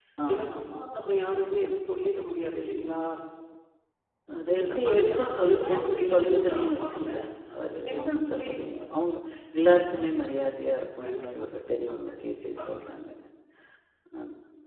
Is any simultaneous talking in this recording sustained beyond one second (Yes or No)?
Yes